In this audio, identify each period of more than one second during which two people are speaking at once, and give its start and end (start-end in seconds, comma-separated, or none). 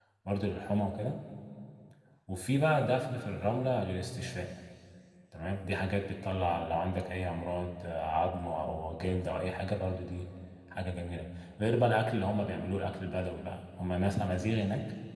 none